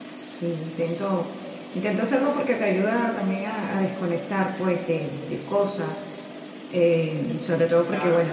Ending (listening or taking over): listening